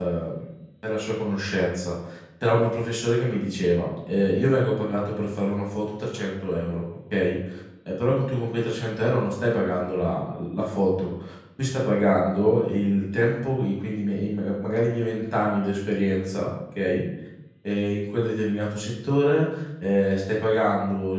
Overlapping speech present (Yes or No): No